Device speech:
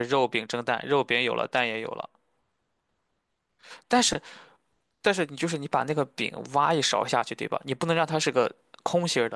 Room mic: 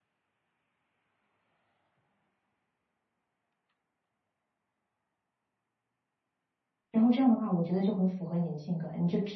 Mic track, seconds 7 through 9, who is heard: user only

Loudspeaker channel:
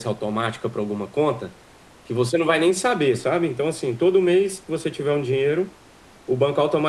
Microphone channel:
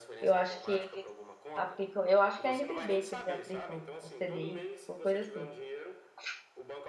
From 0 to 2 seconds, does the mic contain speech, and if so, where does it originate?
both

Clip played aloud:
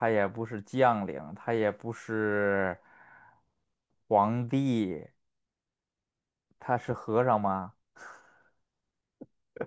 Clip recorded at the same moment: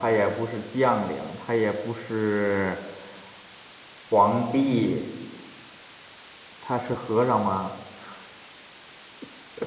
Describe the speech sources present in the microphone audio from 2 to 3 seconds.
echo only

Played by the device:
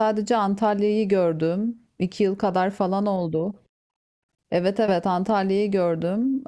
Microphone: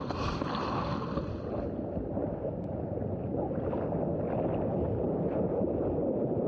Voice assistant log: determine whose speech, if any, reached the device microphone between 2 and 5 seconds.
neither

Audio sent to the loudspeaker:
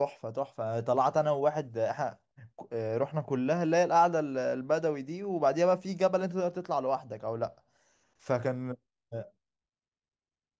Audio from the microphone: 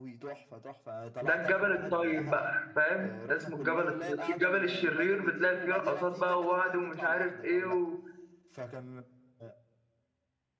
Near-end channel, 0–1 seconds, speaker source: echo only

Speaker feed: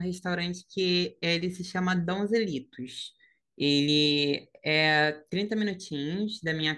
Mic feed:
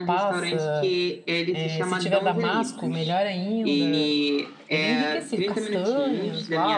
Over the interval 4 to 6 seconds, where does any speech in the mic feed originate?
both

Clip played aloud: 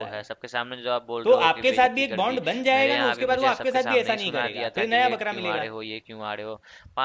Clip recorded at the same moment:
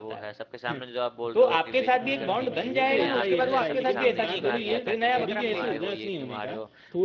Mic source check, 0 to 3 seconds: both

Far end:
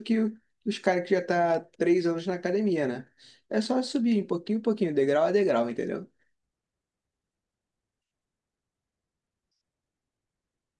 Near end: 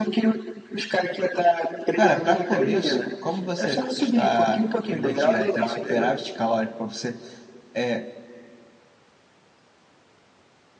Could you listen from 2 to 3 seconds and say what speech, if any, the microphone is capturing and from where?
both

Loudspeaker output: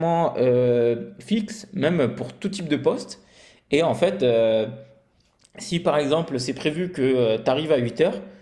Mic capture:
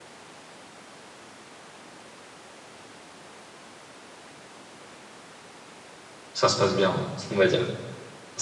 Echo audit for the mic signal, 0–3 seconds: neither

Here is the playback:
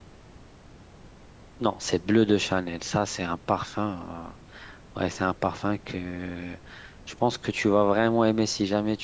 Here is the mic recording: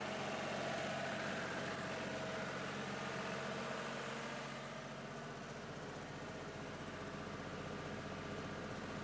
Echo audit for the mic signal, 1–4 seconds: neither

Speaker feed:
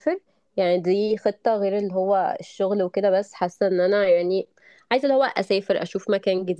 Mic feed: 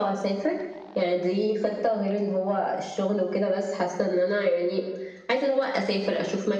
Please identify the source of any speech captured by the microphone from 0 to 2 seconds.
echo only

